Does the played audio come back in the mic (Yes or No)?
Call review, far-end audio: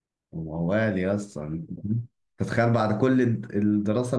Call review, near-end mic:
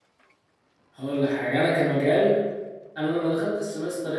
No